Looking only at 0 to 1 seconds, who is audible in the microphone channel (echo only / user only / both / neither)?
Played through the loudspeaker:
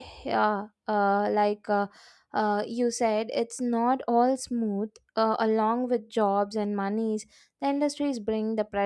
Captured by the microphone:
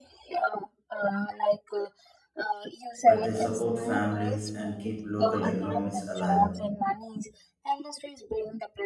echo only